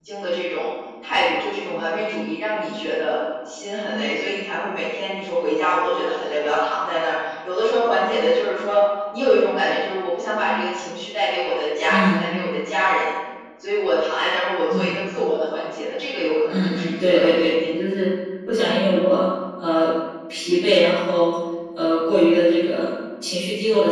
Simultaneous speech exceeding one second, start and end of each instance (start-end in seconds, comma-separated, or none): 16.5-17.8